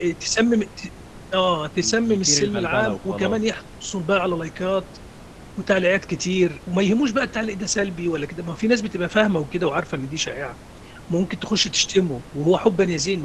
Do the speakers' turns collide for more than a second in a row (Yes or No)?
Yes